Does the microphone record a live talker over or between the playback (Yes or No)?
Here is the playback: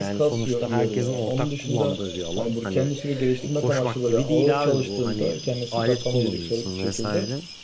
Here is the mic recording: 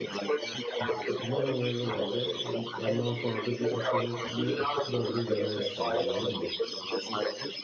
Yes